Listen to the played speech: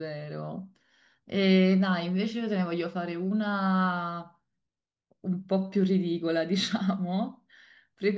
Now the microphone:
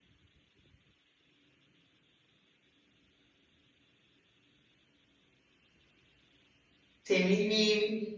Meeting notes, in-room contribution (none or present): present